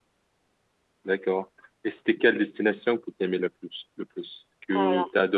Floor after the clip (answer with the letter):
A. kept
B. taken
A